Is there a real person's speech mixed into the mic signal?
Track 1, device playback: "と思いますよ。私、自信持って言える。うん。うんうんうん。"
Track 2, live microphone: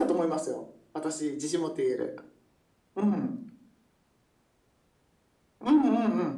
No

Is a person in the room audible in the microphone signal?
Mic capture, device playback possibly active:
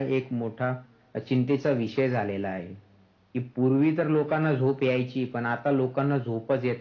No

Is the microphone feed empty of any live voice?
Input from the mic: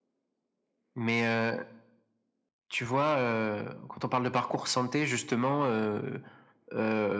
Yes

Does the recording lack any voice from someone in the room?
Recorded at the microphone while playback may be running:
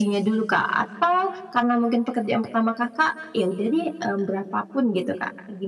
Yes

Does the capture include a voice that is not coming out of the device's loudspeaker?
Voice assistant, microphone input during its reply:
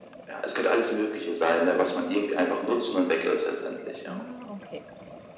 Yes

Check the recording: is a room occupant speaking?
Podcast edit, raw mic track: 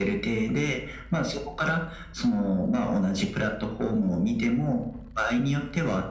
No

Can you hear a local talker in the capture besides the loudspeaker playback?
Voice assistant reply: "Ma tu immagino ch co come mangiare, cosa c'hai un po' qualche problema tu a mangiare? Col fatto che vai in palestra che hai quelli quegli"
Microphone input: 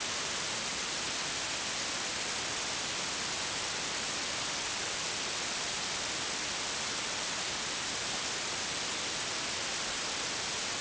No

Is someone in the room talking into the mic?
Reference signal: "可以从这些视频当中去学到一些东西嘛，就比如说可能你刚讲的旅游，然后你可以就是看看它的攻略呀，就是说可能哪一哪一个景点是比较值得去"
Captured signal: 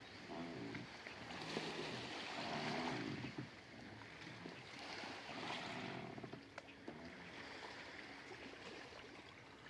No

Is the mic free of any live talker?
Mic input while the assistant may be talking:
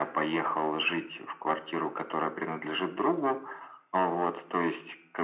Yes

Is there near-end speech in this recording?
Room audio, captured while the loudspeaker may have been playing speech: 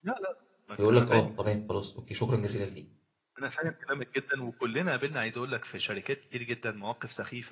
Yes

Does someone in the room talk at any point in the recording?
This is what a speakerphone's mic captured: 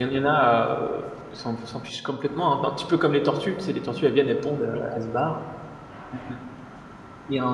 Yes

